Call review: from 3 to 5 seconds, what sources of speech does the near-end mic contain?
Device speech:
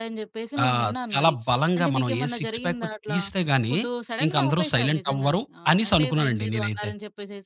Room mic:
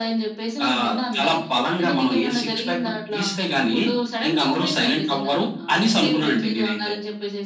echo only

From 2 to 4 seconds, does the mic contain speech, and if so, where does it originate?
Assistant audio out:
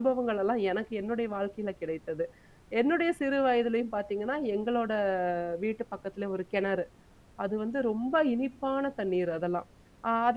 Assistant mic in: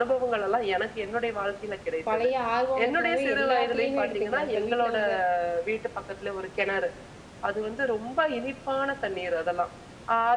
both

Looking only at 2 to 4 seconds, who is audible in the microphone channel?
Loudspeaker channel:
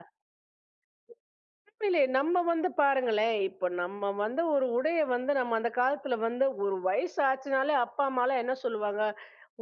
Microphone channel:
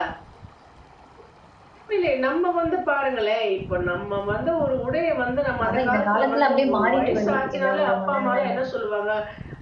echo only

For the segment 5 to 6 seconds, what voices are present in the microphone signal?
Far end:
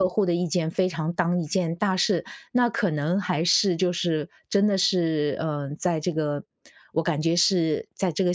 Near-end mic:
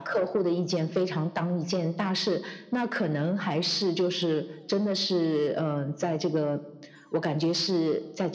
echo only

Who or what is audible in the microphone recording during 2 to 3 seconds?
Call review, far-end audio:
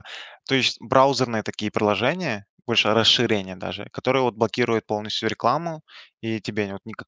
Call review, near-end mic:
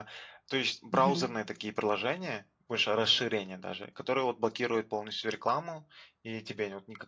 echo only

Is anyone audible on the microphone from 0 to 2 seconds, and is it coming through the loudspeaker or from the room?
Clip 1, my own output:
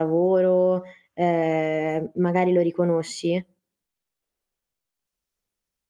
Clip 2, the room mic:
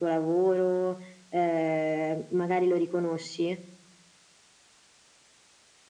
echo only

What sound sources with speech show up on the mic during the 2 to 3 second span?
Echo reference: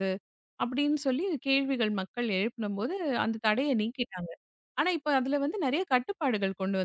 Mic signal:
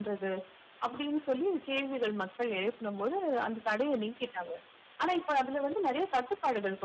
echo only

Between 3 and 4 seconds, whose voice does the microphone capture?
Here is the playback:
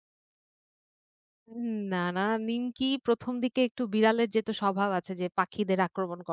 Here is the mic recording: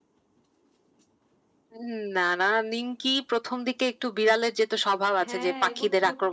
echo only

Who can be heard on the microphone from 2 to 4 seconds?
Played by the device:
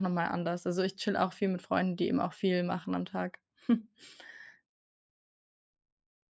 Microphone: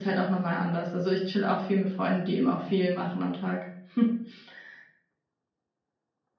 echo only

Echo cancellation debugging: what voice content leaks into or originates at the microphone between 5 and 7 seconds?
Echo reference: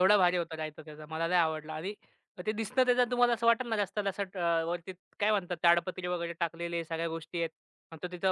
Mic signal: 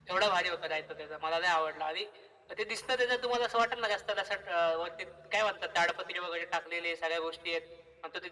echo only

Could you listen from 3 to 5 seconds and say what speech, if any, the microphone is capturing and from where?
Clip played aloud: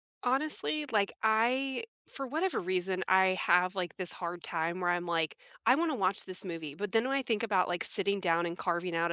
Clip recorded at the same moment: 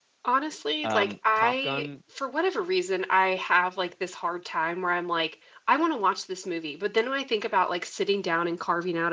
echo only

